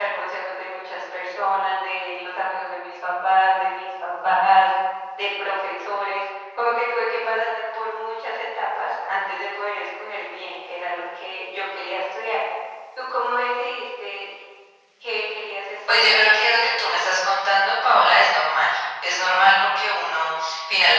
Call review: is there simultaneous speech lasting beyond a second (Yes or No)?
No